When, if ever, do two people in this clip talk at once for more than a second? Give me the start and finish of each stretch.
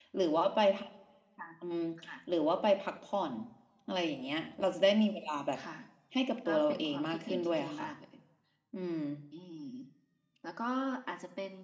6.5-7.9

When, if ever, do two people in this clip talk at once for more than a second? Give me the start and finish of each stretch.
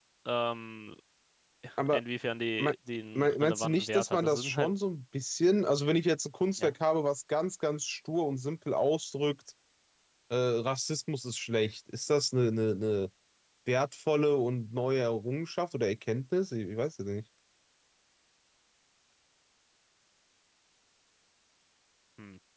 3.2-4.7

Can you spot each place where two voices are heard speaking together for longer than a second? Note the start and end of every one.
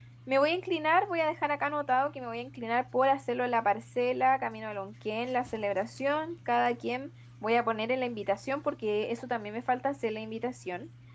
none

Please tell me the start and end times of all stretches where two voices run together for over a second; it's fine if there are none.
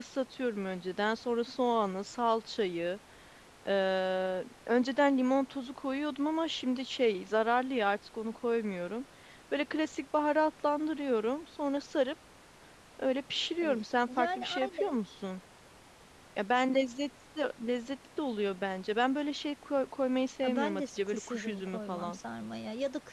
13.6-15.0, 20.4-22.2

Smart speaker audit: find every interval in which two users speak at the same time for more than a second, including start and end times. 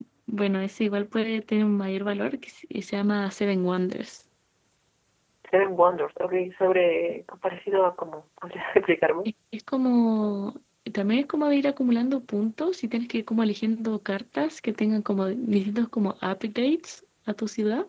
none

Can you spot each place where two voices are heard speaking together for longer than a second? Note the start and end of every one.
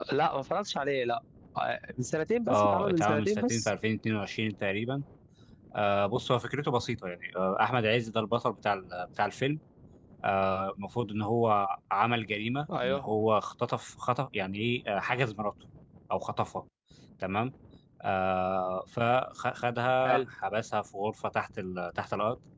2.5-3.7

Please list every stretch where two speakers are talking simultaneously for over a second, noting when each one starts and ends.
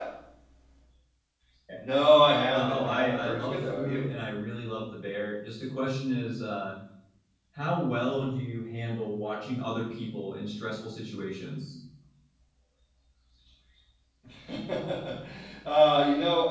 2.5-4.0

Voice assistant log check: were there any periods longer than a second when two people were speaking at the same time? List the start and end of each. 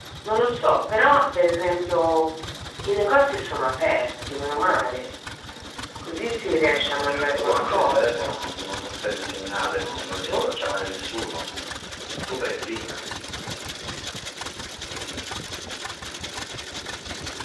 7.1-8.3

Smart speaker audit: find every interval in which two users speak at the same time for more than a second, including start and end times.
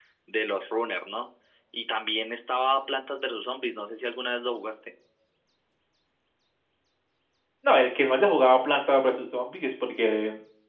none

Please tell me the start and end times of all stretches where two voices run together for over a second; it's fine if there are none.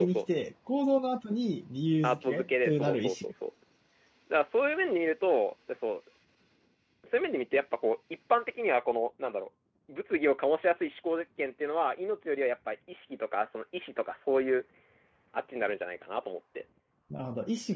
2.0-3.3

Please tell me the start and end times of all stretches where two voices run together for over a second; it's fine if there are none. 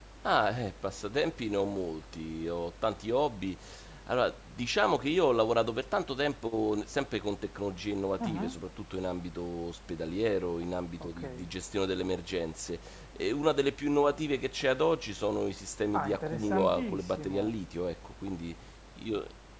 16.0-17.5

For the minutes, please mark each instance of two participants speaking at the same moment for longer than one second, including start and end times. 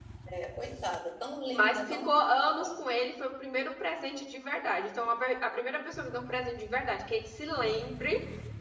1.5-2.7

